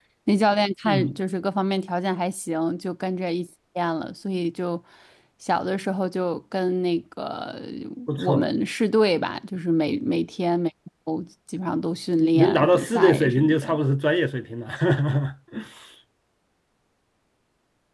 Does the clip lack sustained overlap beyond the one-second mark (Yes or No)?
No